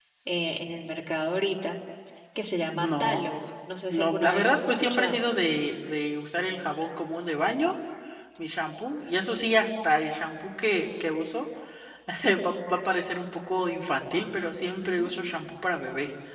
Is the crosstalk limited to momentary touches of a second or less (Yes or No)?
No